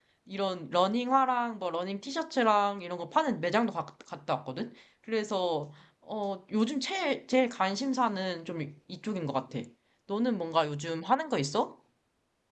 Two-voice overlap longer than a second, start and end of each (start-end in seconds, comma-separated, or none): none